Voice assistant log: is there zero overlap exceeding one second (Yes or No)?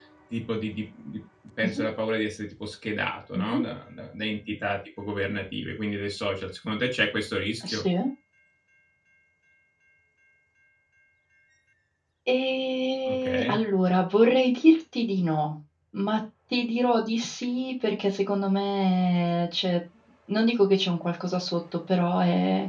Yes